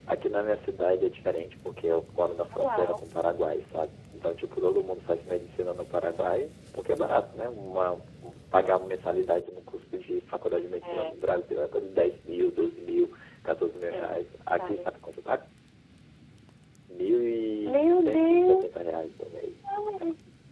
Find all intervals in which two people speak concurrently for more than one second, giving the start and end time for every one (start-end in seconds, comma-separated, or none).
17.6-18.9